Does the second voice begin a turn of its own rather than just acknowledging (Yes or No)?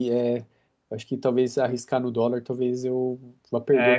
Yes